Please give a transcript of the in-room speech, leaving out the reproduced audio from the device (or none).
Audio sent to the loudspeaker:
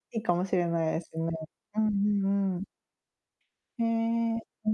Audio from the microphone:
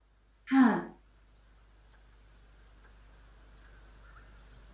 はい。